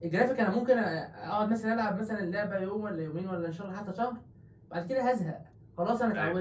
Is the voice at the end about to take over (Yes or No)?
No